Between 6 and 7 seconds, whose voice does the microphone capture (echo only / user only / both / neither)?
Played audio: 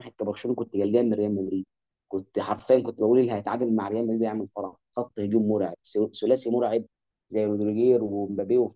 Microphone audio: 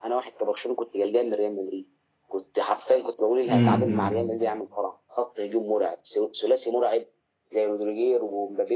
echo only